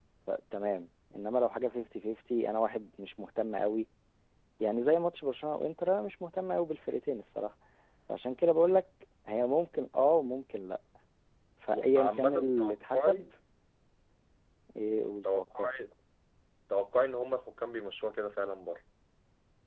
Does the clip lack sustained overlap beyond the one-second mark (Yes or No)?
No